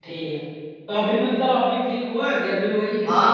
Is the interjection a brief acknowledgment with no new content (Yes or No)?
No